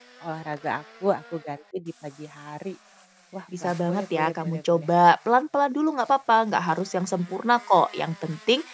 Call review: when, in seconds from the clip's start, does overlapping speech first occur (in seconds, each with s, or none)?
3.6 s